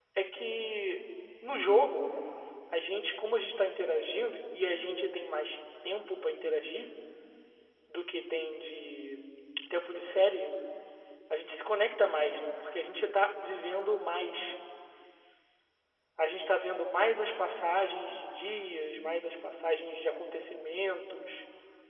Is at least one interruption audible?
No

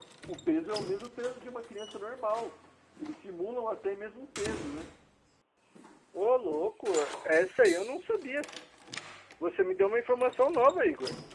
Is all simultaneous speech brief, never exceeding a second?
Yes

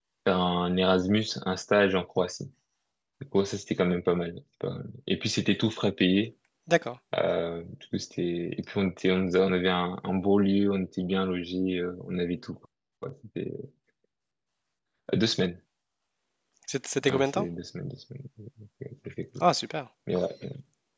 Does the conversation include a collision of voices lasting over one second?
No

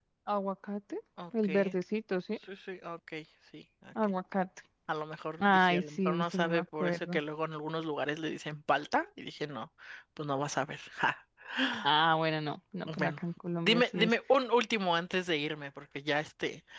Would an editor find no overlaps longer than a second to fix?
No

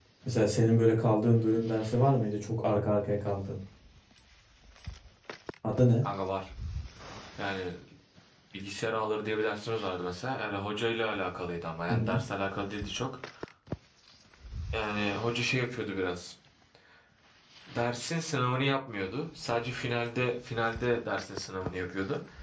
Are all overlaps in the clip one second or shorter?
Yes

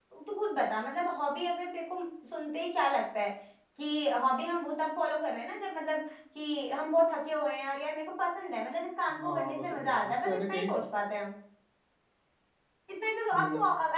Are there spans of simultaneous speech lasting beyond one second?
Yes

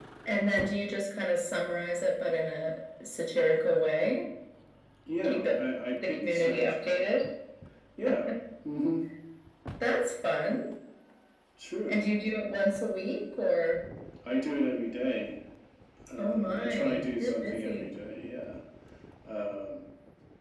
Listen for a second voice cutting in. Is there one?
Yes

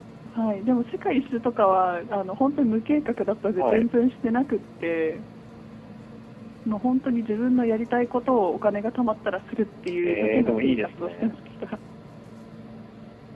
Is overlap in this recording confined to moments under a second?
No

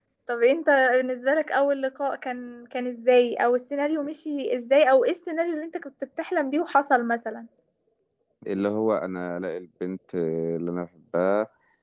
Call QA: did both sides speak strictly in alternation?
Yes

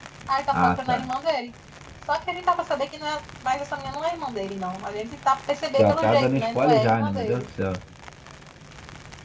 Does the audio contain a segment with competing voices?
Yes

